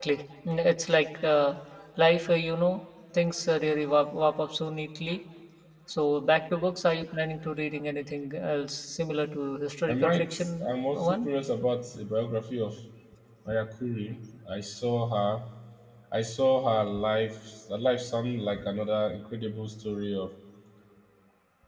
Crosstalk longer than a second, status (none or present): present